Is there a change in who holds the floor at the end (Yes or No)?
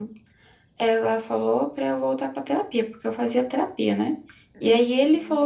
No